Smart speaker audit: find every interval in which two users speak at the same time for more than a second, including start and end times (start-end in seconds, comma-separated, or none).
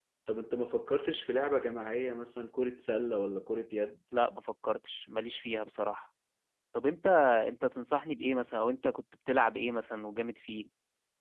none